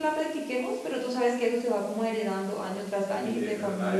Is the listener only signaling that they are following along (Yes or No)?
No